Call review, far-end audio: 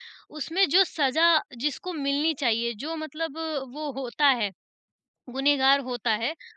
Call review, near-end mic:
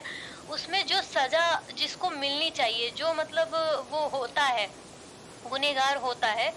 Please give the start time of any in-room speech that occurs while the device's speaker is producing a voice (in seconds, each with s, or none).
none